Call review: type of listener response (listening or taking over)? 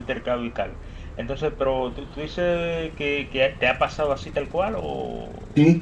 taking over